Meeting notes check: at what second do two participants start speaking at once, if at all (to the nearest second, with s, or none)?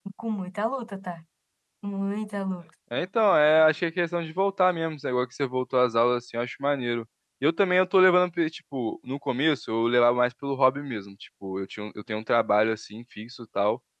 none